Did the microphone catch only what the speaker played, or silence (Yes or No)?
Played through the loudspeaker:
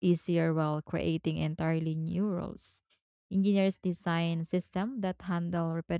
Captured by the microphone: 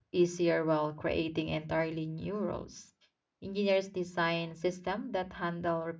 Yes